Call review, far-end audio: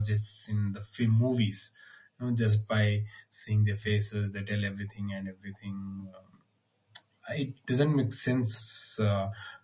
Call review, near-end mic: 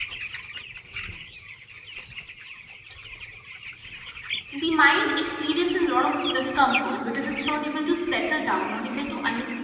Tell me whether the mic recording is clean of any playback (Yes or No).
Yes